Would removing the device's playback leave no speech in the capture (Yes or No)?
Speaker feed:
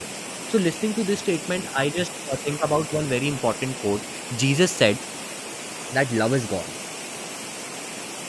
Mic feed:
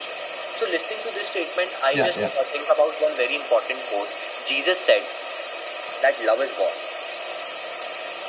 No